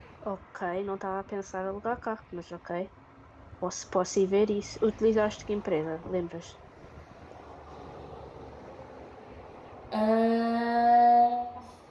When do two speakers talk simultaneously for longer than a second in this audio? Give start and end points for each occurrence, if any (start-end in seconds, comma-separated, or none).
none